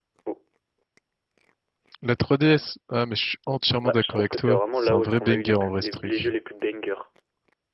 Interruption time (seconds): 3.8 s

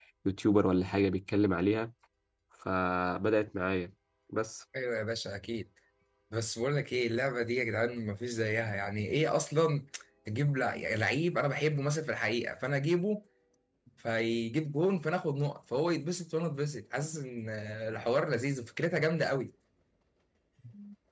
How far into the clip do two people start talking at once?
none

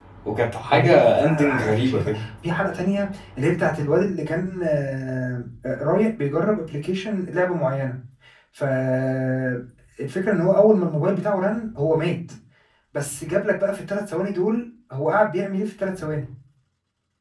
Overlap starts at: 0.6 s

